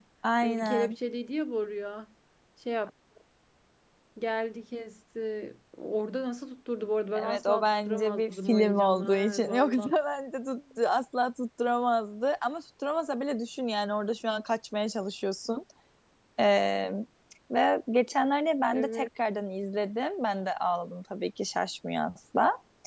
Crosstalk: present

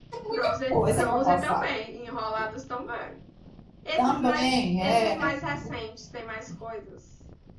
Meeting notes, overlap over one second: present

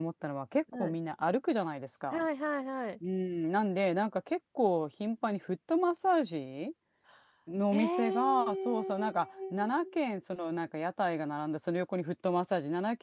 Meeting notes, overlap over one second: present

